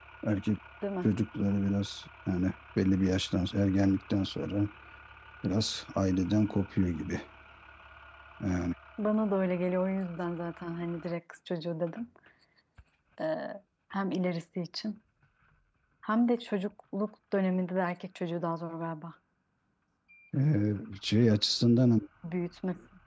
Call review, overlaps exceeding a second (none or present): none